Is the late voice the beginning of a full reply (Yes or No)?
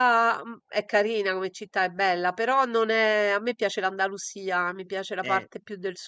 No